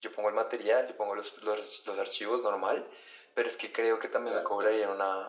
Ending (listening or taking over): listening